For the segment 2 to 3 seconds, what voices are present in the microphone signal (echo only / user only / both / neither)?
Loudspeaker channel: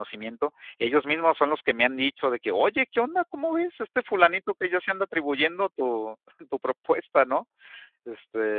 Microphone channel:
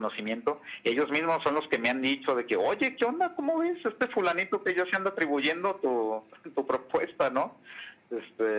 echo only